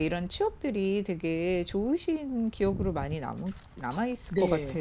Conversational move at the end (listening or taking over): taking over